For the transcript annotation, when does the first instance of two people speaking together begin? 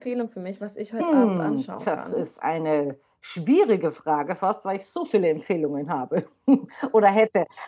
1 s

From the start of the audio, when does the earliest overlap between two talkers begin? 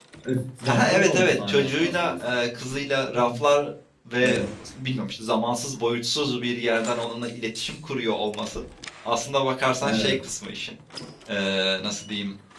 1 s

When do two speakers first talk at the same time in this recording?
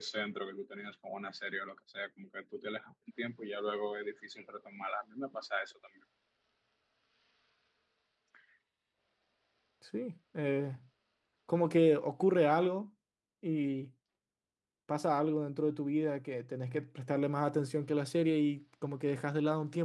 none

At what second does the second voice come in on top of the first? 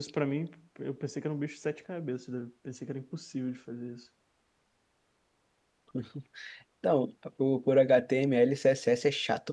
none

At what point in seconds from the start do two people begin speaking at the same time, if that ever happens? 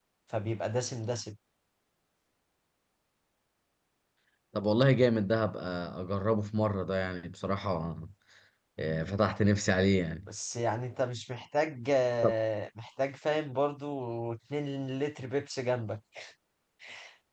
none

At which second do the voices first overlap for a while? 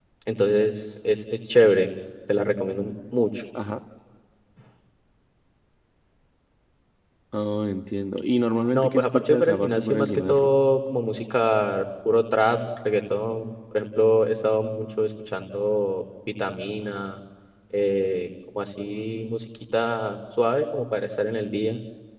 9 s

